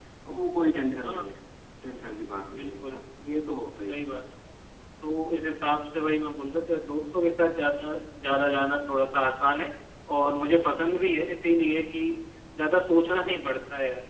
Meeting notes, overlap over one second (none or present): none